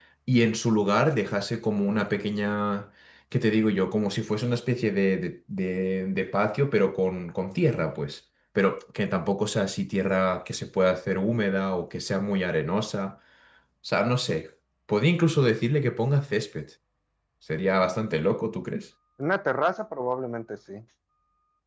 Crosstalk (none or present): none